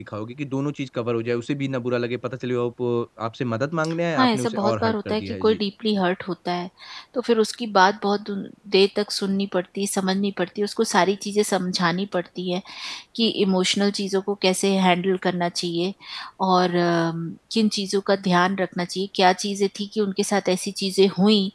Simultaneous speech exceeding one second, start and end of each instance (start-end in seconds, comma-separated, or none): 4.2-5.6